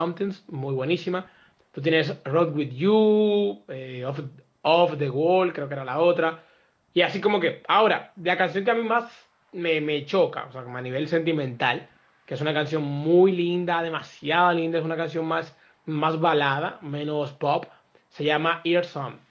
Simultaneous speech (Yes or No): No